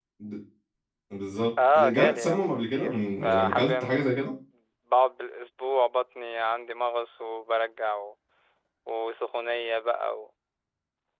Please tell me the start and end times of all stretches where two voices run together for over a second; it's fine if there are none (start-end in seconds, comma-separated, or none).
1.7-4.1